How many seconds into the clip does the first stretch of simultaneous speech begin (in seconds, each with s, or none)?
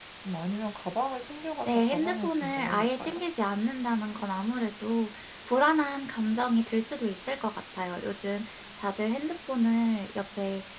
1.6 s